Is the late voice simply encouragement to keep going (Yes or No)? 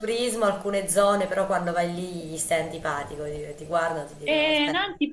No